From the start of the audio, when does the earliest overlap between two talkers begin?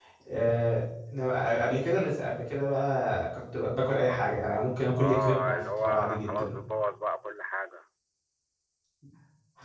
5 s

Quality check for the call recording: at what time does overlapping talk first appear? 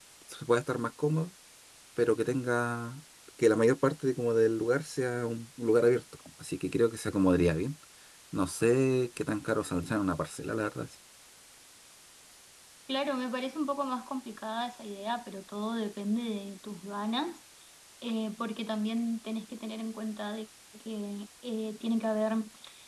none

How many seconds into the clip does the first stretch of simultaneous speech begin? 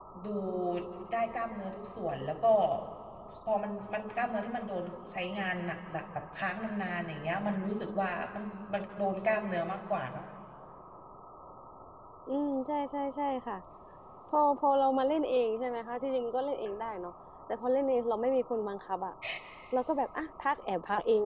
none

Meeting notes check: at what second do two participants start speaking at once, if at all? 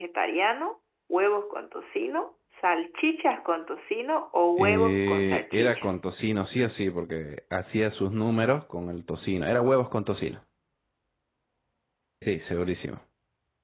5 s

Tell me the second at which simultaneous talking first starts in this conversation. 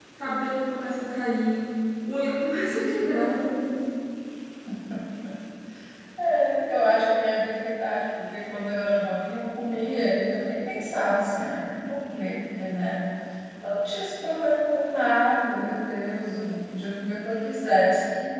none

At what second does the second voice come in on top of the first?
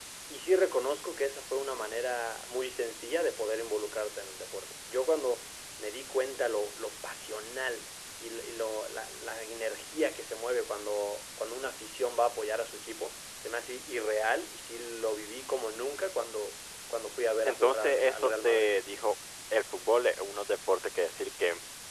17 s

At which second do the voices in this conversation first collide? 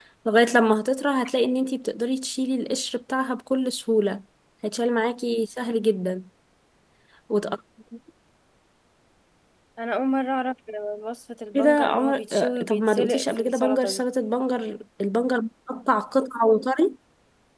12 s

